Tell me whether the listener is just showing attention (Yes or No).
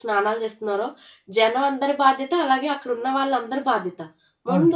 Yes